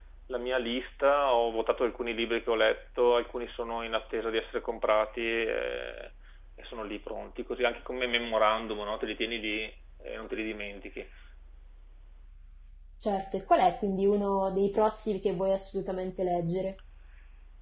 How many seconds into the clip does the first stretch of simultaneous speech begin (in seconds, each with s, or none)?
none